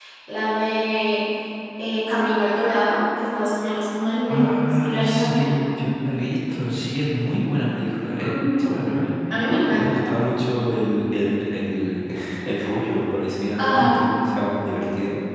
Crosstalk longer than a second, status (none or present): present